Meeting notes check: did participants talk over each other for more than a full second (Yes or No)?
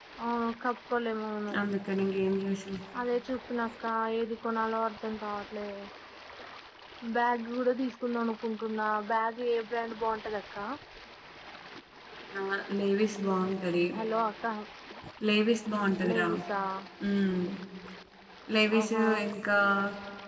No